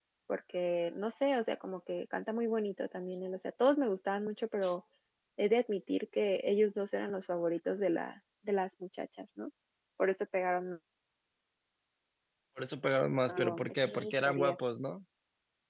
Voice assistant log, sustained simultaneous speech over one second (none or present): present